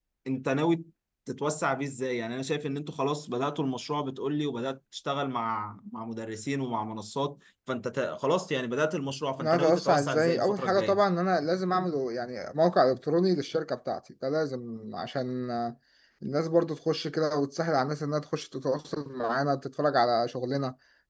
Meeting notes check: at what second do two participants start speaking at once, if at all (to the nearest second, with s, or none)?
9 s